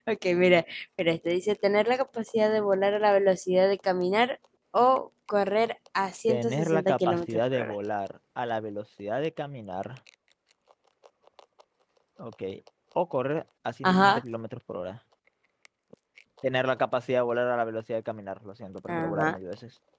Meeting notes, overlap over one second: present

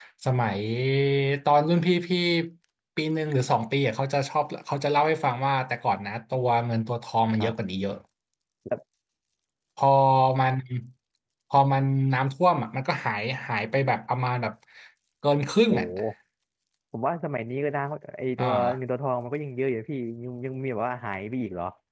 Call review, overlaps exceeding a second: none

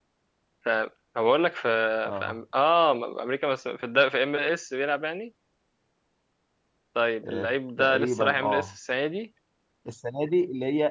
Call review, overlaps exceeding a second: present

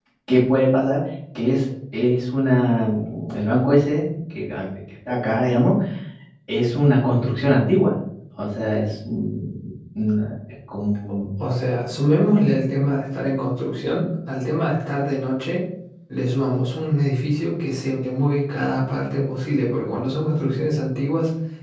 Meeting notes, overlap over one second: none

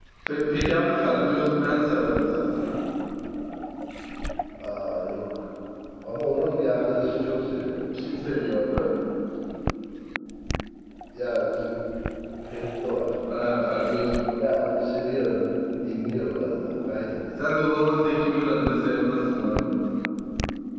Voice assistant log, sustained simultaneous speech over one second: none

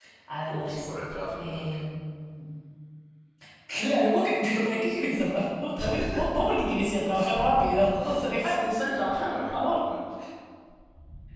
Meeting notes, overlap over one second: present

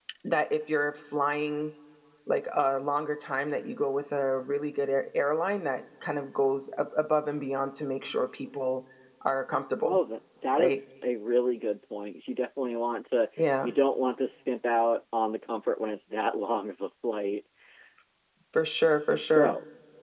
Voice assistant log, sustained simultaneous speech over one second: none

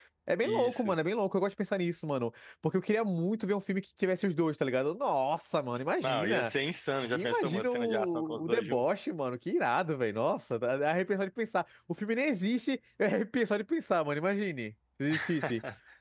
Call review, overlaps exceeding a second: present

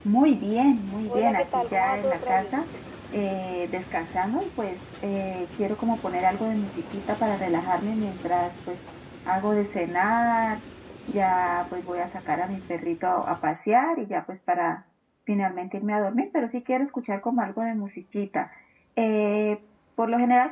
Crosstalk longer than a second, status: present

